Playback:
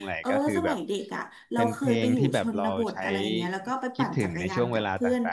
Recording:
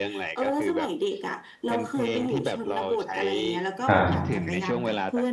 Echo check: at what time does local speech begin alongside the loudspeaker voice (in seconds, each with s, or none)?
3.9 s